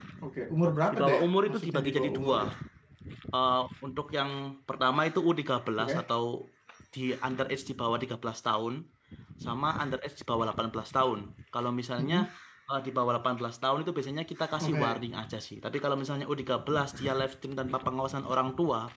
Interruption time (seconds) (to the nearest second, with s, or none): 1 s